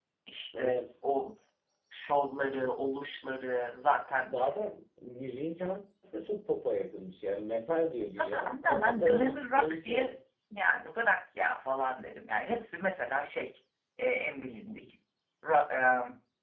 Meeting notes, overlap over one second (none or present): present